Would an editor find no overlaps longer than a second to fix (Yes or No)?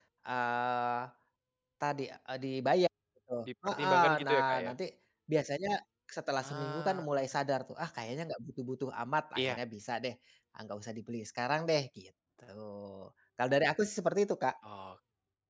No